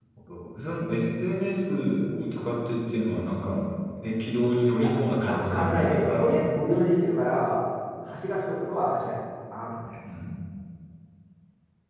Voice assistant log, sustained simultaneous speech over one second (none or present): present